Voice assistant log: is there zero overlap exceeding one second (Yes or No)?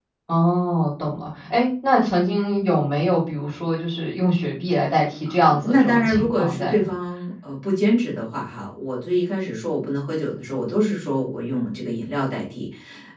No